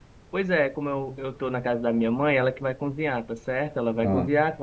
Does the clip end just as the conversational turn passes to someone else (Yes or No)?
No